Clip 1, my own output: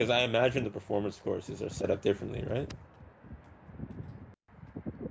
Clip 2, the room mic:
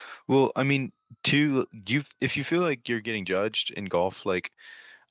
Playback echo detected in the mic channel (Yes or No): No